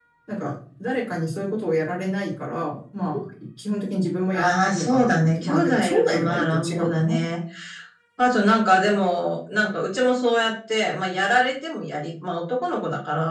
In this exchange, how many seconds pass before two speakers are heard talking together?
4 s

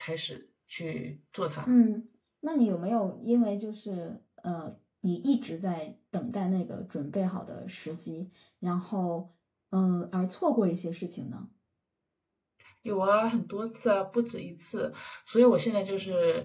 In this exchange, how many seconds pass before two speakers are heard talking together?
none

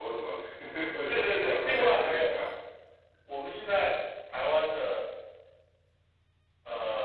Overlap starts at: 1 s

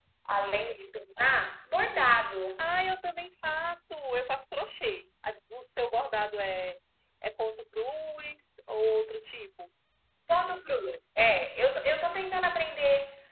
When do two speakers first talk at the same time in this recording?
none

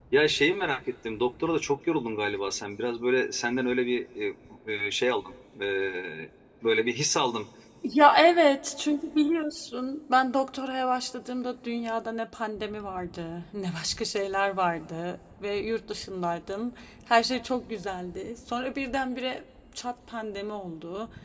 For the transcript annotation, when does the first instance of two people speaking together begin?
none

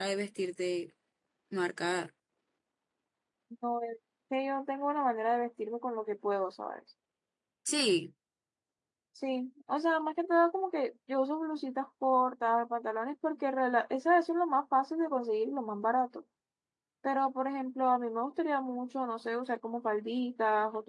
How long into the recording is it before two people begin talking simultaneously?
none

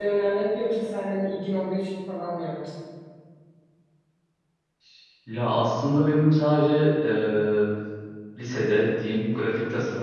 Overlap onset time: none

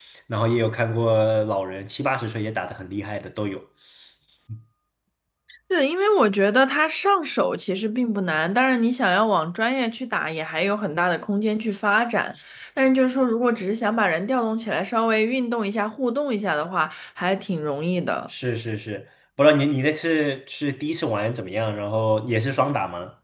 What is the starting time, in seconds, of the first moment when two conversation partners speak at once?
none

